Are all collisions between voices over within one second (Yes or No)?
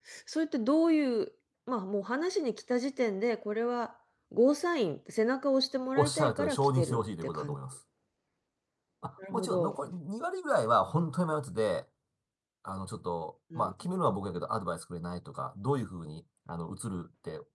No